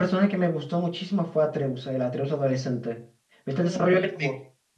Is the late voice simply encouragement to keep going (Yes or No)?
No